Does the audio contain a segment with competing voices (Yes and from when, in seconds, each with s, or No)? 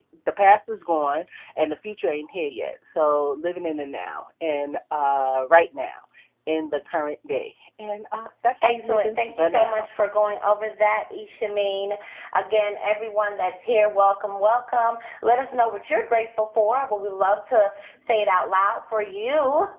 Yes, from 8.6 s